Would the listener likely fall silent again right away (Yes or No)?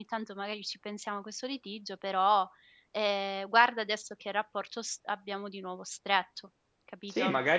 No